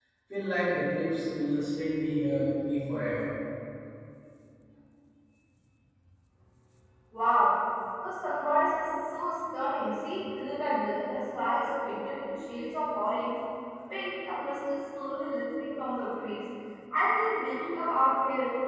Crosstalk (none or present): none